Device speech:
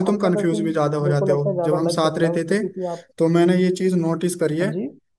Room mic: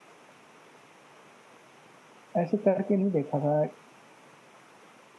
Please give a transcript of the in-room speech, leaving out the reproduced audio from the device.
ऐसे करके नहीं देखा था

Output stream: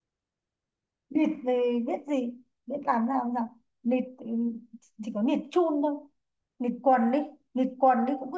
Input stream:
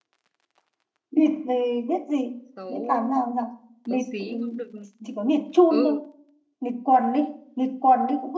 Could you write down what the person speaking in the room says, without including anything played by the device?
xấu xấu xí cũng được ừ

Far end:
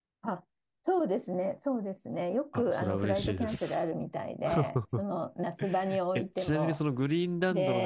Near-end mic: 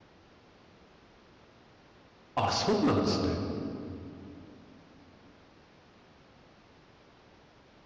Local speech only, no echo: あ、そうなんですね。

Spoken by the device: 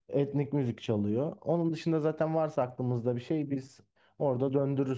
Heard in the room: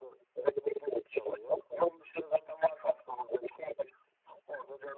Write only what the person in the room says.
none

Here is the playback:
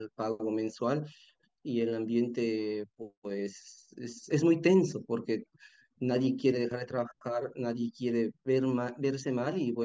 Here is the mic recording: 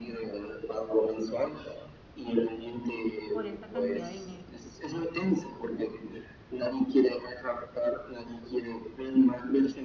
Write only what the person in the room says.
por esta cantidad de dinero

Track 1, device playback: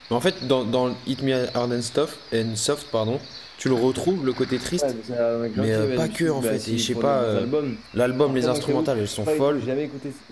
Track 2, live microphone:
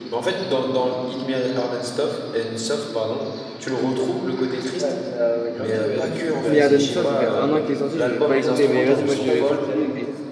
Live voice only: Hit Me Hard and Soft, ça fait un an qu'il est sorti, j'ai pas écouté. Mais vas-y, moi, je, ce que je dis,

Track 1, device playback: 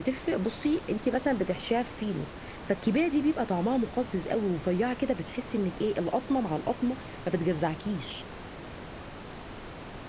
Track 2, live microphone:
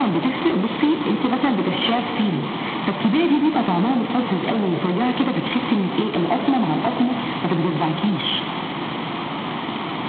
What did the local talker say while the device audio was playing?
none

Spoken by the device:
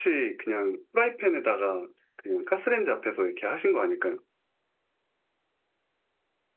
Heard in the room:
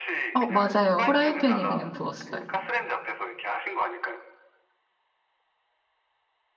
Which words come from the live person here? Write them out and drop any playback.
어, 맞아요. 후라이팬에 그냥 구웠어요.

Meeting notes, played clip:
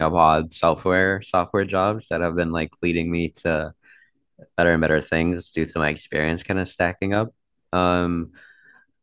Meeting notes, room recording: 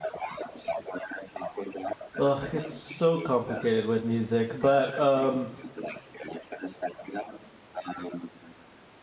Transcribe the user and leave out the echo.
ugh, it's so complicated with music, but um

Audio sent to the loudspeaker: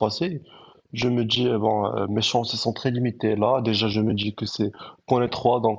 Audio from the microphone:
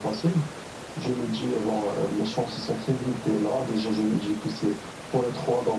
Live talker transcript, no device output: none

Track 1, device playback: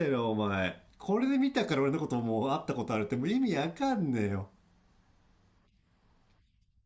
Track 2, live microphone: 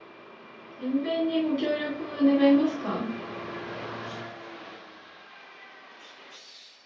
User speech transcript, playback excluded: 検便にご協力願いますか

